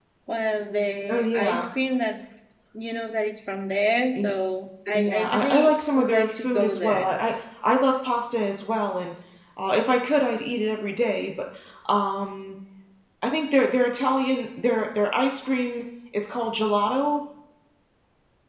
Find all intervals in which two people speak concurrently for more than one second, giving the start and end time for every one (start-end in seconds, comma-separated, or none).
4.9-7.1